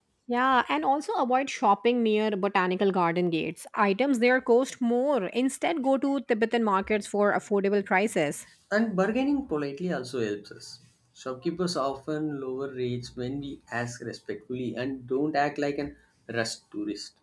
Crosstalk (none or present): none